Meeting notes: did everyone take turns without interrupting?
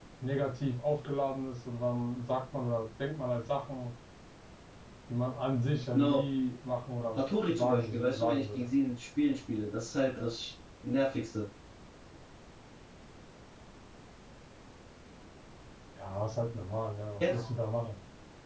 No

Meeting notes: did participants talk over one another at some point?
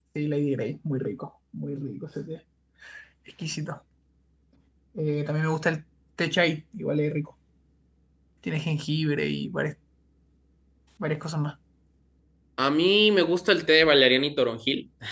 No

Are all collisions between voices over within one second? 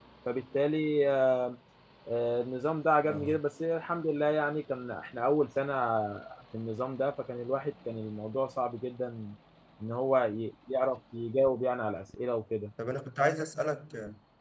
Yes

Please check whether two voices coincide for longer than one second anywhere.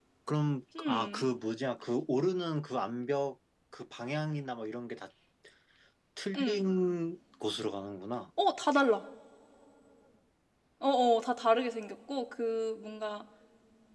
No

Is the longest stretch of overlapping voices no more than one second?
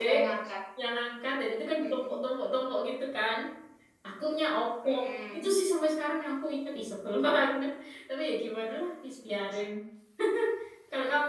Yes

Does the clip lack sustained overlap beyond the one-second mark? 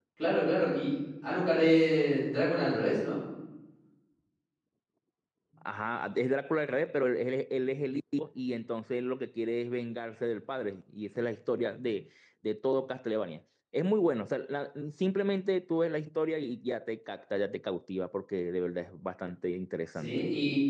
Yes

